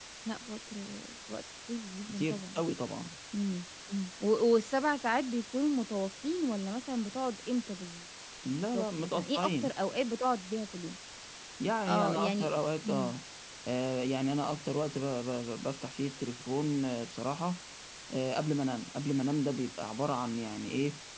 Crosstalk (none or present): present